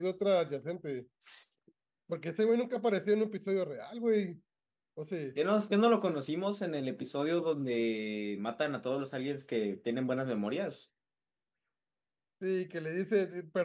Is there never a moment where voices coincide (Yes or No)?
Yes